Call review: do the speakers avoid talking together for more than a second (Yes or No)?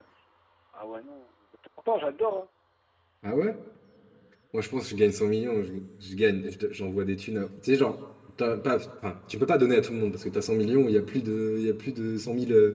Yes